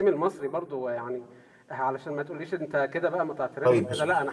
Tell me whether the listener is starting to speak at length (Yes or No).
Yes